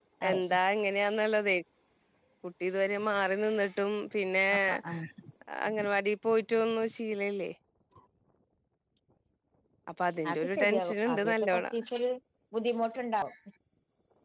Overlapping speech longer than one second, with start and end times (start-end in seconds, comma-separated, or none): 10.3-11.7